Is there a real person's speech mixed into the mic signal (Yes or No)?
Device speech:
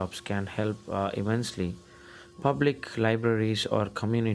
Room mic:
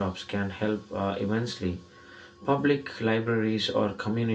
No